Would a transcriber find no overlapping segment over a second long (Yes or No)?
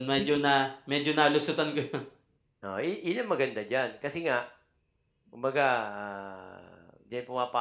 Yes